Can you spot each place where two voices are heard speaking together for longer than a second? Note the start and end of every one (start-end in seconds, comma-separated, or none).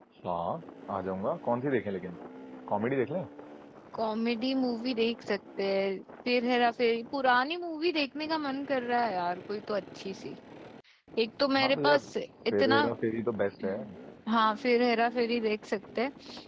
none